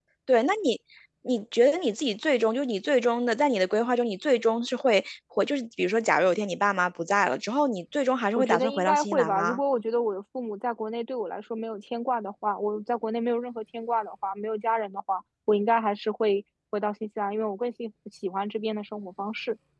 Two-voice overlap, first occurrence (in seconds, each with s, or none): 8.4 s